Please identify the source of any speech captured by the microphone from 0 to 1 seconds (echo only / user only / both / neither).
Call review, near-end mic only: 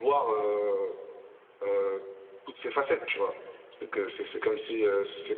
user only